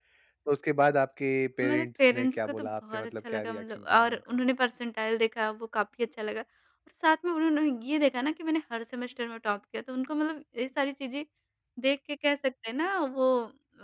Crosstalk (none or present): present